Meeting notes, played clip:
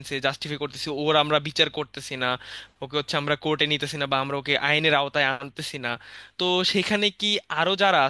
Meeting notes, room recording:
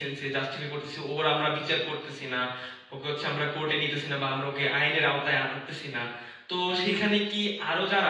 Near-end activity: none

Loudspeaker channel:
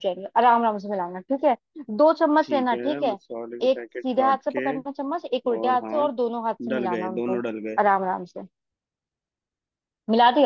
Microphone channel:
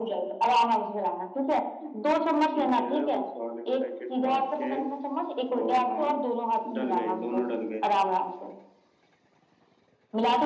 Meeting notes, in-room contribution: none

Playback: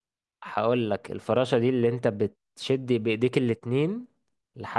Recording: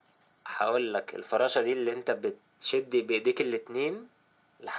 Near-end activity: none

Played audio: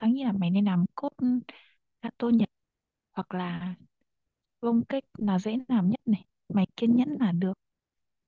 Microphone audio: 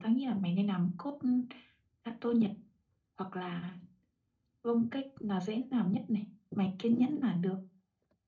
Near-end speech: none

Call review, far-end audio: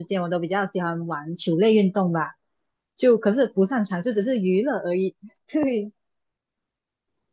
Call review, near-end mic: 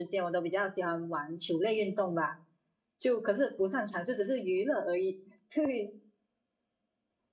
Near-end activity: none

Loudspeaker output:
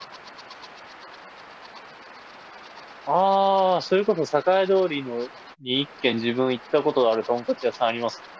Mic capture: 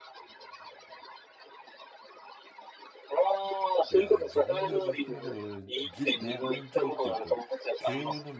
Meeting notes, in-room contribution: present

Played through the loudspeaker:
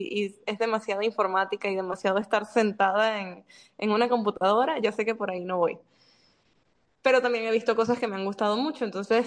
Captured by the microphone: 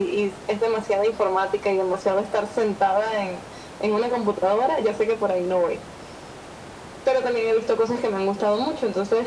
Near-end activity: none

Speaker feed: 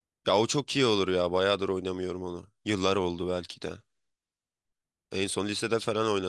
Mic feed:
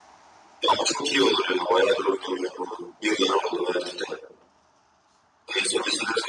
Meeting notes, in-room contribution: none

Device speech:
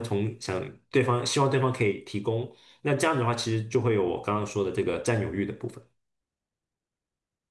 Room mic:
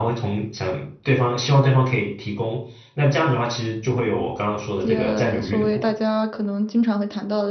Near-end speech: present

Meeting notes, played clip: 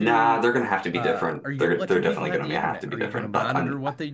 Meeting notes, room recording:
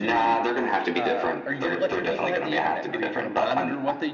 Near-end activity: none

